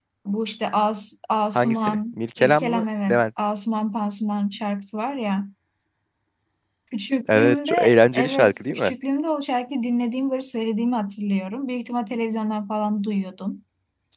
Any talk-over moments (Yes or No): Yes